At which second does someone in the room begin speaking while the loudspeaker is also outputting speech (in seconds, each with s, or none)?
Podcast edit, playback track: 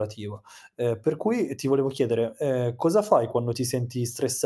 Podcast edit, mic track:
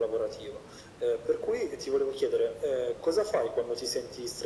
none